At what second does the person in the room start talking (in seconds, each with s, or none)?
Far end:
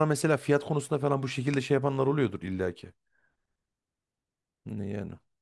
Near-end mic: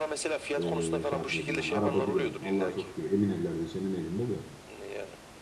0.6 s